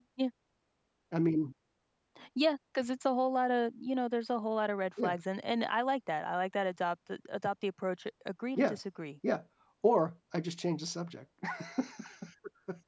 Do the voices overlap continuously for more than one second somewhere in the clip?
No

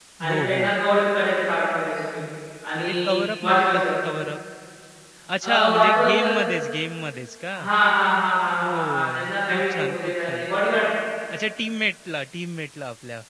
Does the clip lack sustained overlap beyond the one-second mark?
No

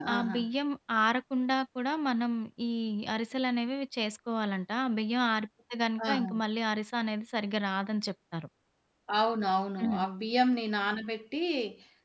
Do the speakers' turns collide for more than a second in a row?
No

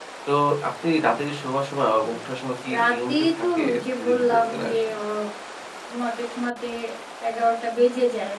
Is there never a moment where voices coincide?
No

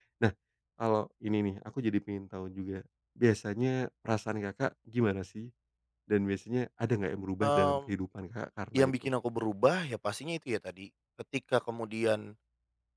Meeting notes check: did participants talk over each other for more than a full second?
No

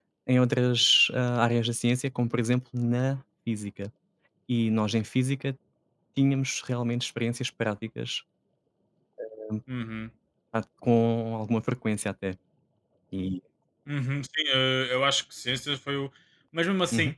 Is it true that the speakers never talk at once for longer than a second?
Yes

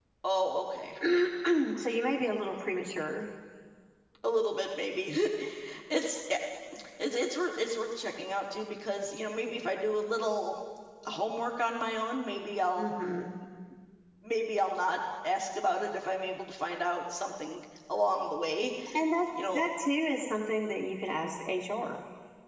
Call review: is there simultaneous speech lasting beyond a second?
No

